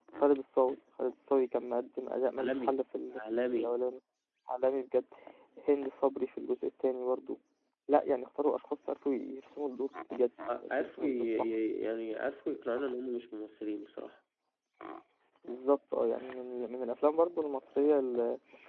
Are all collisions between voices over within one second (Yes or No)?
No